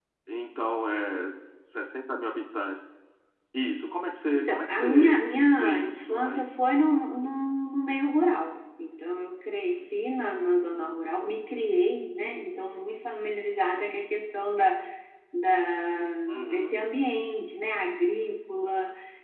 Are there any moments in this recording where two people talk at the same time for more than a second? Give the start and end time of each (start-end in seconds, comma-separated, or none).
4.3-6.5